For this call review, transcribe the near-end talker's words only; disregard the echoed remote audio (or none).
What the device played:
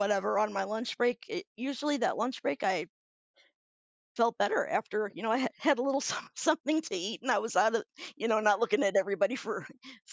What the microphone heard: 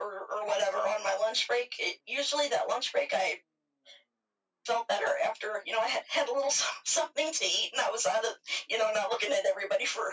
none